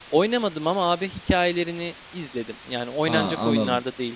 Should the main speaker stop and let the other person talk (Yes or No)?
Yes